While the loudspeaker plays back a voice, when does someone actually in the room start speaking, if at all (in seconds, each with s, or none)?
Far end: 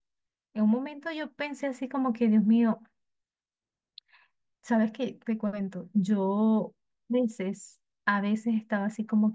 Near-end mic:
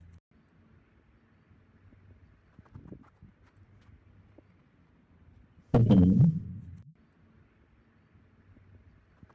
5.7 s